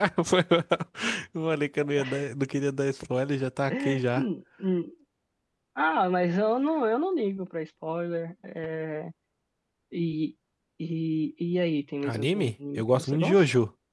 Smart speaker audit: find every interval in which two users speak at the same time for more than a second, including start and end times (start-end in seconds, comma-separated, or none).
12.0-13.4